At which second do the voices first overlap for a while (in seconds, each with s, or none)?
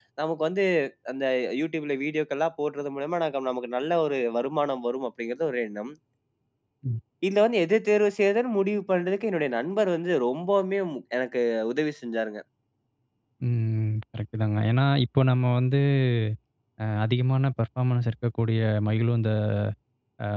none